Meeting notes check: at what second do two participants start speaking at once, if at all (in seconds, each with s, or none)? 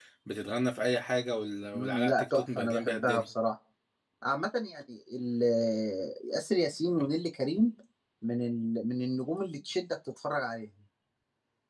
1.7 s